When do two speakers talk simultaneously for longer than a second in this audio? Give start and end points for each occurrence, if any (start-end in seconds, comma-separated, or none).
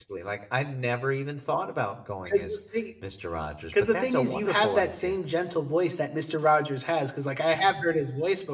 3.7-5.2